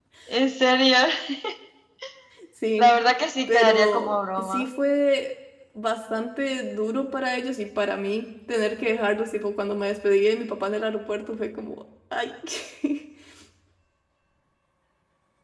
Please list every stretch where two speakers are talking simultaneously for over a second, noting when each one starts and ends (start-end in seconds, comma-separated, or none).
3.5-4.7